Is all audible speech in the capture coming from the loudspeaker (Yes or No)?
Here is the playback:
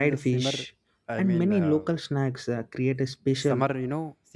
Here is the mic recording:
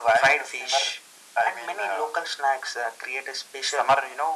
Yes